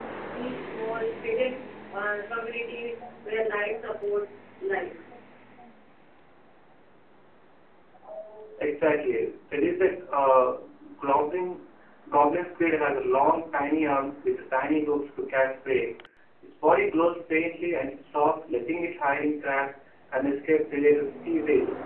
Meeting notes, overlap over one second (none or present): none